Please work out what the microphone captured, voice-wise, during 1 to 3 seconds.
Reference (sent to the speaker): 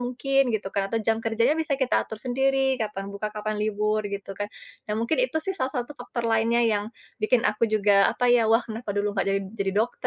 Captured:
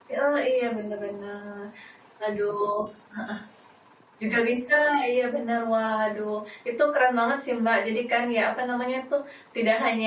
user only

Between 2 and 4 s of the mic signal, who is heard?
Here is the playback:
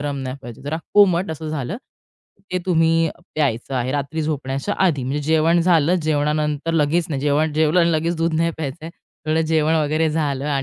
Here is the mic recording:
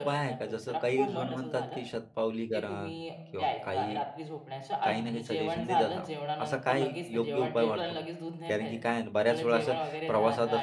both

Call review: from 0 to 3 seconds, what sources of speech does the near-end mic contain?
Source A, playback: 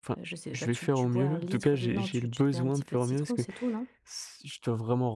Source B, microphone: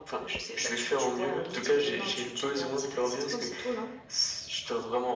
echo only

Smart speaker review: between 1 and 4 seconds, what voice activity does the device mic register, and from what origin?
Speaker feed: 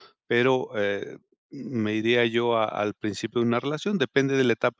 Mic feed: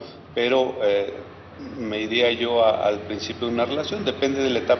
echo only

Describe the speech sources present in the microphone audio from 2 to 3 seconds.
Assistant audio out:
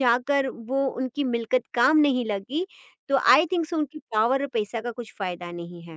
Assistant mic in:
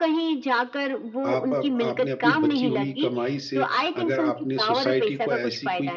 both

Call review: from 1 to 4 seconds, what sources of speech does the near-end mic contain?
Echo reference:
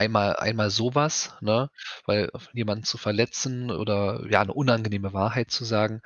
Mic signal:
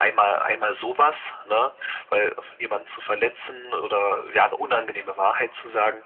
echo only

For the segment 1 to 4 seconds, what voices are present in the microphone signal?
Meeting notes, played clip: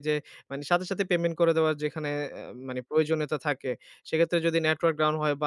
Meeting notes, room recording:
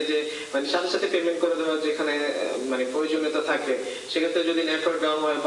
echo only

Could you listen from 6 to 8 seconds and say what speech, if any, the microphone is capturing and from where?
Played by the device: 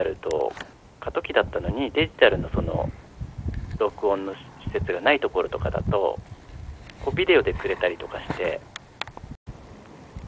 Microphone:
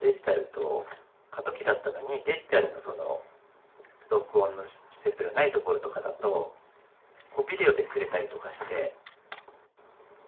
echo only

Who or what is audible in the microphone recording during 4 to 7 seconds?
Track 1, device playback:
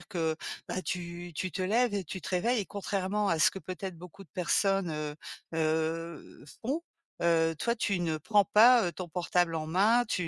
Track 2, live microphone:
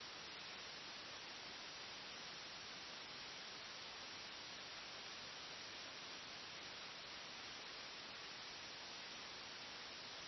neither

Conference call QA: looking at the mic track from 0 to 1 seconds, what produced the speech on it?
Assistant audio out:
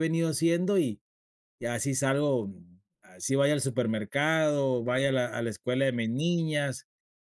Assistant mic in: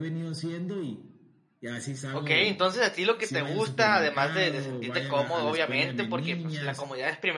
echo only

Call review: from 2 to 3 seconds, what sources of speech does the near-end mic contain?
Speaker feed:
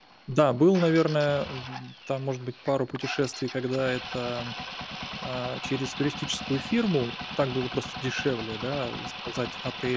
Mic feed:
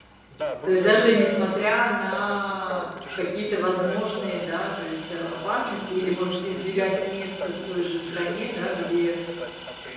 both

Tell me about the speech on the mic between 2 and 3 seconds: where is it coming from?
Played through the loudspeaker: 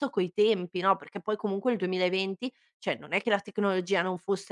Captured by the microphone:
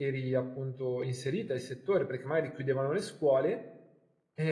user only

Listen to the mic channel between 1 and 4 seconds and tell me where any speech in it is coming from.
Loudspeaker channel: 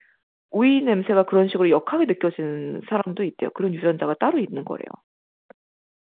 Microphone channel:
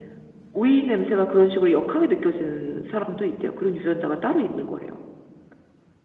echo only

